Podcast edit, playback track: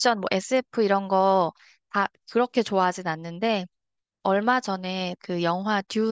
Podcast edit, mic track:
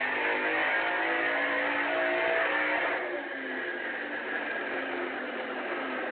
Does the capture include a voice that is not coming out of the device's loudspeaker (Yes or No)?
No